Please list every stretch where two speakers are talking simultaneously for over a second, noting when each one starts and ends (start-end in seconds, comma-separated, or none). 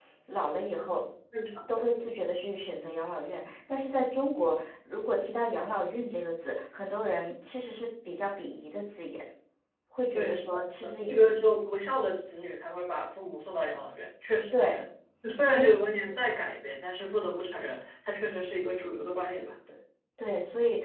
10.1-11.4